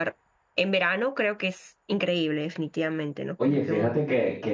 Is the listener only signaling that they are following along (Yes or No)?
No